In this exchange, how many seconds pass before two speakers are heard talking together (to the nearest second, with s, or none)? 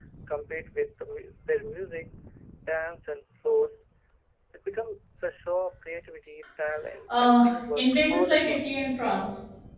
7 s